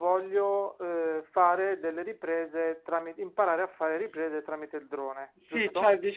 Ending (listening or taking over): taking over